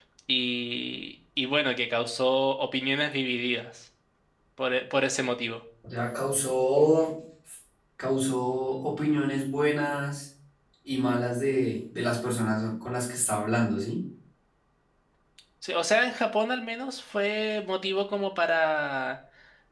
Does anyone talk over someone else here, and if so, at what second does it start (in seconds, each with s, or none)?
none